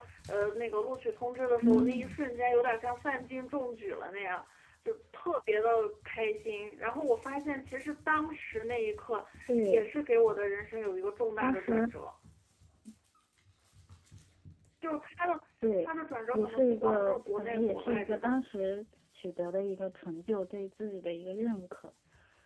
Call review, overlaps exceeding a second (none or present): present